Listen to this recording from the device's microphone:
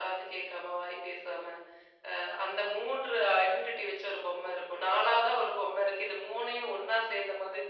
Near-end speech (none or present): none